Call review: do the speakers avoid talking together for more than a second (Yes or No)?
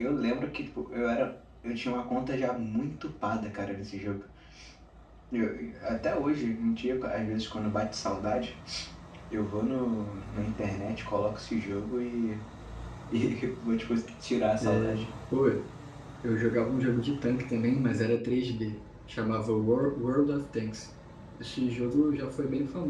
Yes